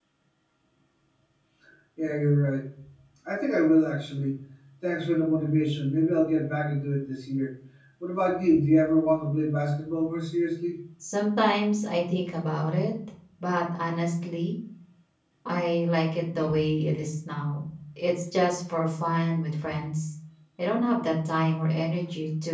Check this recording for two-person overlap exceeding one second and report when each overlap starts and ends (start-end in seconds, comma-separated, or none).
none